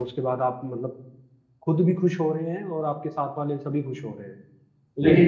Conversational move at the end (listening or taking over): taking over